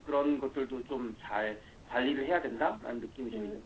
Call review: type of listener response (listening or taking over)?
taking over